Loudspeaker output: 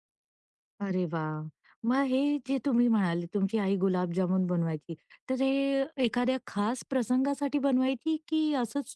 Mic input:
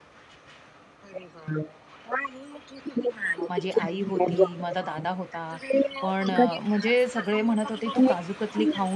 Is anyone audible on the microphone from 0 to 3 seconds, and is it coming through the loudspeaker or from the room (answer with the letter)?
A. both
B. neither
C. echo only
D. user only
C